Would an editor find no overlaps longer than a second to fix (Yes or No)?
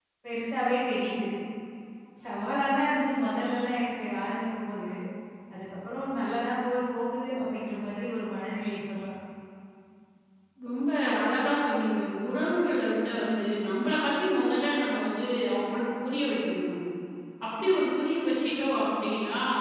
Yes